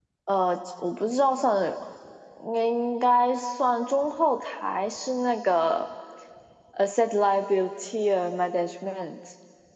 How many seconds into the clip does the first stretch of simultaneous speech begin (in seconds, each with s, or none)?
none